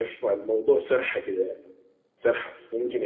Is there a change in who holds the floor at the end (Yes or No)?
No